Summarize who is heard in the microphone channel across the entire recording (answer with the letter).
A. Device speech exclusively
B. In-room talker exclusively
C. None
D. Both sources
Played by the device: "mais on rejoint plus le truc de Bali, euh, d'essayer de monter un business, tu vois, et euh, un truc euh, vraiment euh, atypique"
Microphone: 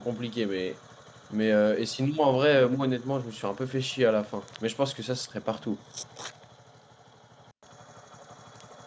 B